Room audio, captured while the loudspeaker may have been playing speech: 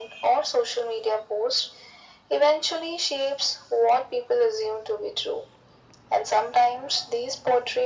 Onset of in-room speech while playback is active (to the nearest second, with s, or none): none